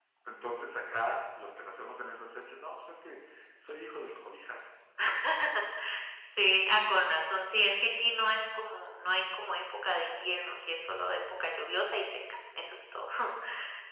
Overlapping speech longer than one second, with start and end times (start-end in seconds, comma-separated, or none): none